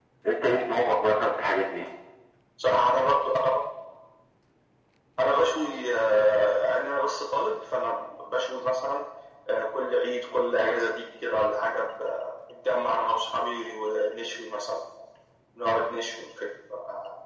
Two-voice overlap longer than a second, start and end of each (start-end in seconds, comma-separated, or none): none